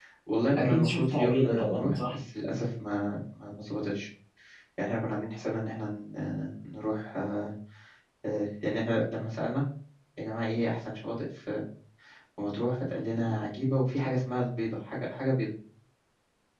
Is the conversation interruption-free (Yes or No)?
No